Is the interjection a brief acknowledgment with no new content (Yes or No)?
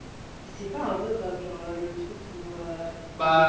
Yes